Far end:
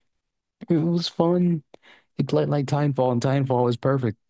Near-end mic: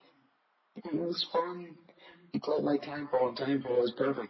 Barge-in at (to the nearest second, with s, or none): none